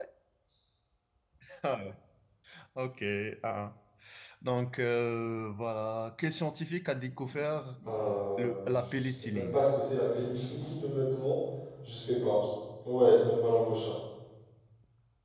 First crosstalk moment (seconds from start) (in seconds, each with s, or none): 8.4 s